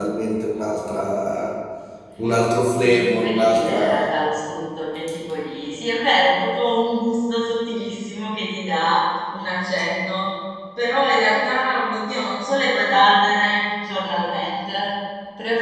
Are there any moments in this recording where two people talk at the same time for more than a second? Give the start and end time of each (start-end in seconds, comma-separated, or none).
2.8-4.0